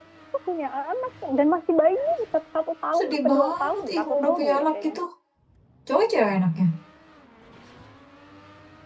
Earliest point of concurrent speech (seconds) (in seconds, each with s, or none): 2.9 s